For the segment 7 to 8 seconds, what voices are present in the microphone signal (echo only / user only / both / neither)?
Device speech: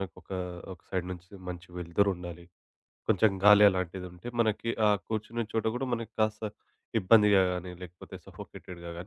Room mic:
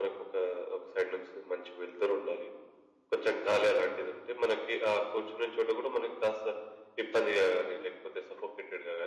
echo only